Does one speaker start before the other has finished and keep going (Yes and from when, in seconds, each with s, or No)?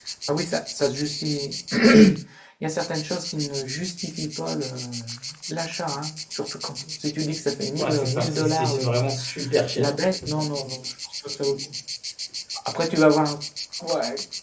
Yes, from 7.8 s